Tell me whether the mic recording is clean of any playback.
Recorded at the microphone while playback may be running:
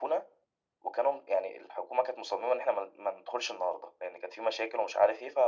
No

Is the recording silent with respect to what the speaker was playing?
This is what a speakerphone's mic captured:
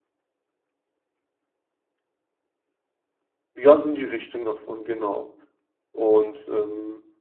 Yes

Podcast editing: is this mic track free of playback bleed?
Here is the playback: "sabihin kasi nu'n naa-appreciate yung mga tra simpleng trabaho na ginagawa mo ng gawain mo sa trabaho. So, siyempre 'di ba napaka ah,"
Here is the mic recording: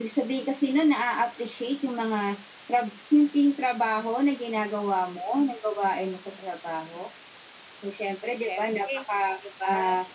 No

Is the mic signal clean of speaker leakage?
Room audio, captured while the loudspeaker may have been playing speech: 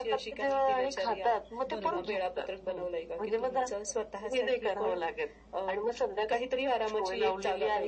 No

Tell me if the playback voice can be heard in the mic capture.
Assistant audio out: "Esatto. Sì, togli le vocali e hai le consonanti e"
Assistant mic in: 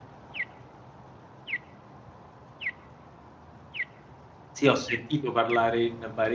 No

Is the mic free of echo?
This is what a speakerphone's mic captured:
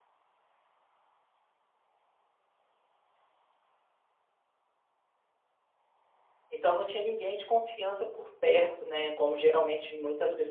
Yes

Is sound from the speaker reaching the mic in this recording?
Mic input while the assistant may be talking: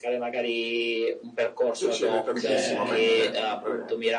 Yes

